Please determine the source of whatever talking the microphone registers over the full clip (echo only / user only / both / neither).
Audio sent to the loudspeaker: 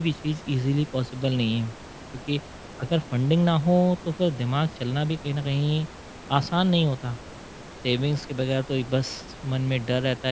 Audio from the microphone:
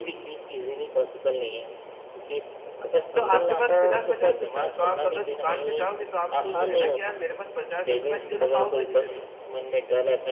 both